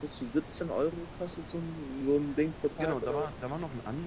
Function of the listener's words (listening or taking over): taking over